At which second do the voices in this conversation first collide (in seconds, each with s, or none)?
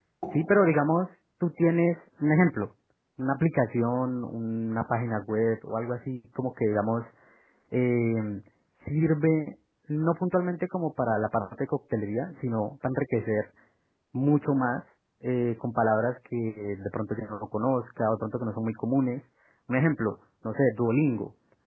none